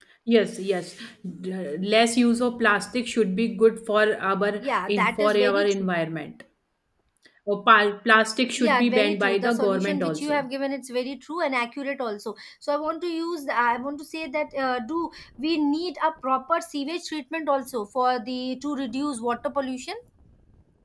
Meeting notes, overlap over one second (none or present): present